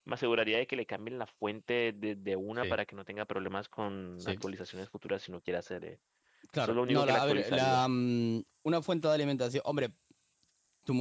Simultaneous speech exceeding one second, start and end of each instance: 6.6-7.8

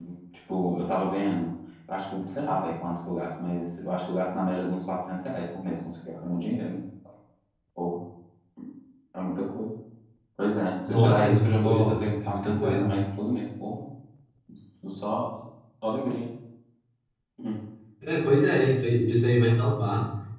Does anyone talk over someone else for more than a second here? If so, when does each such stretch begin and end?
10.9-12.9

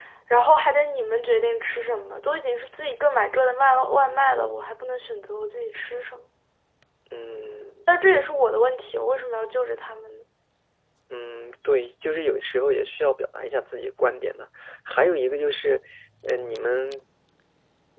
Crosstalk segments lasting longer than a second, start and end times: none

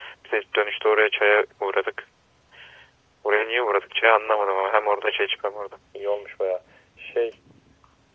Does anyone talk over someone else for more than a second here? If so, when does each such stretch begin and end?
none

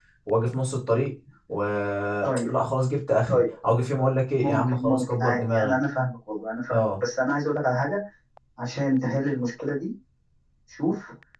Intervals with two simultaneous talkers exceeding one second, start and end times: 4.4-5.7

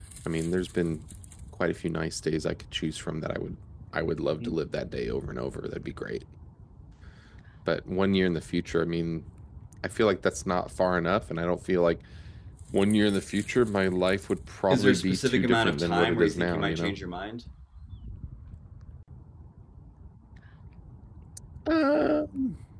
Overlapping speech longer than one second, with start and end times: 14.7-16.9

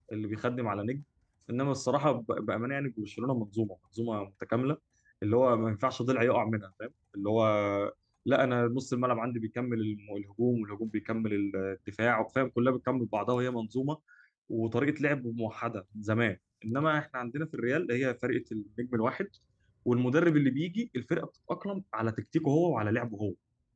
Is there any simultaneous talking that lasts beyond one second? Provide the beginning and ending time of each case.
none

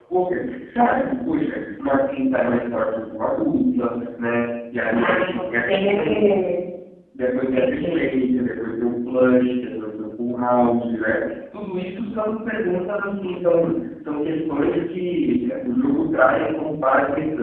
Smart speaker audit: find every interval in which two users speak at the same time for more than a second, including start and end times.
4.9-6.3

